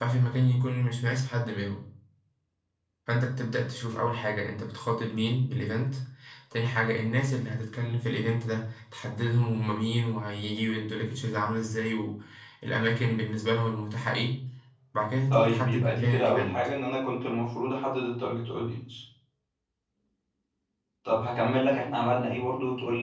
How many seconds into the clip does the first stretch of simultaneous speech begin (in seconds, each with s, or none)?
15.3 s